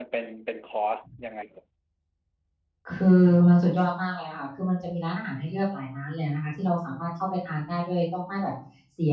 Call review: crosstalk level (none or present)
none